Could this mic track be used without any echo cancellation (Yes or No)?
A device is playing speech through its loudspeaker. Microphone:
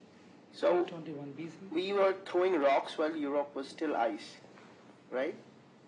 No